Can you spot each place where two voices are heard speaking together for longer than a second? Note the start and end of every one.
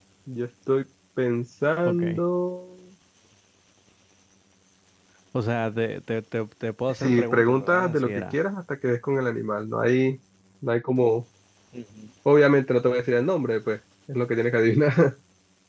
7.0-8.4

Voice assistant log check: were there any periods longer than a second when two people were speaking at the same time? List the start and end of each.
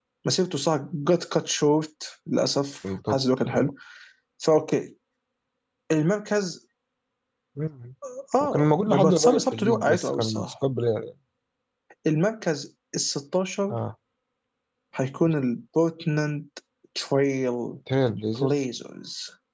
8.4-10.5

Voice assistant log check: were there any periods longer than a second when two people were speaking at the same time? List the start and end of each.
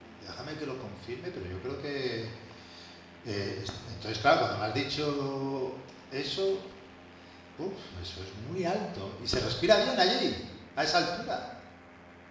none

